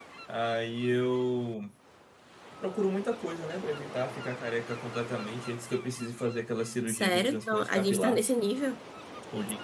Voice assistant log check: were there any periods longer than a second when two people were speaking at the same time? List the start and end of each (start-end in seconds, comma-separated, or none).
6.9-8.2